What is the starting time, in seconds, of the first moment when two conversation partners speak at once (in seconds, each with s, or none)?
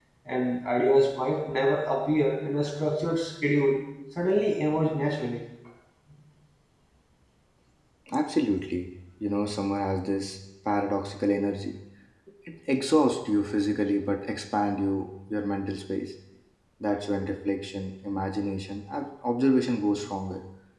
none